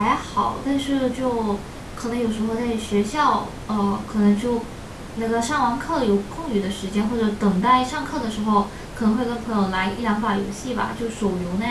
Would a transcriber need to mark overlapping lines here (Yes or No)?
No